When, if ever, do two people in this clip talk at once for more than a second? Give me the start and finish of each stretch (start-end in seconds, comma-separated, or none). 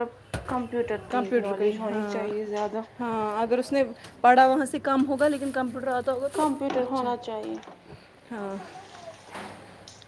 0.9-2.3